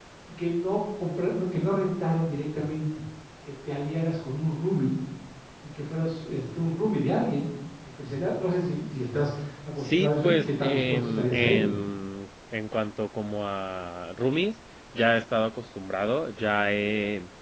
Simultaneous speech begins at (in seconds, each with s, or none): 9.8 s